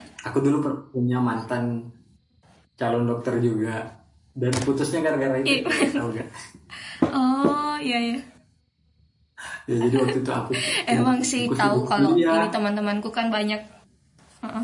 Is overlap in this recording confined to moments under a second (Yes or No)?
No